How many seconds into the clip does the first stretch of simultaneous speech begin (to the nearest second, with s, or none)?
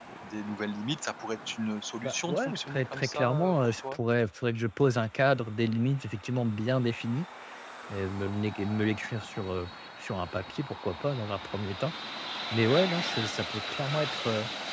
2 s